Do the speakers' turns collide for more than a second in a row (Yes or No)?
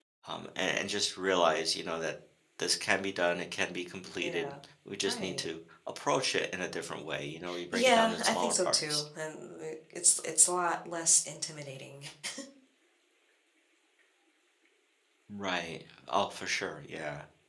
Yes